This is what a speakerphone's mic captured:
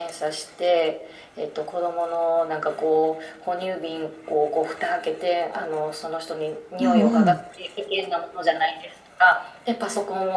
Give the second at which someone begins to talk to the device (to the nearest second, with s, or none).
7 s